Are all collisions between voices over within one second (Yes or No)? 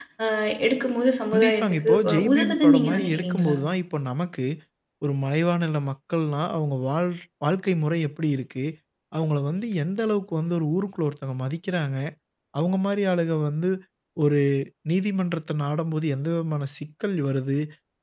No